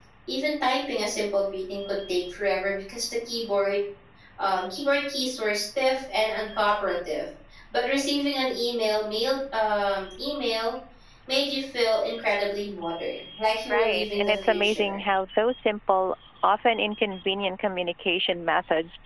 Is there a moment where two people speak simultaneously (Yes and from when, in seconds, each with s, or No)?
Yes, from 13.7 s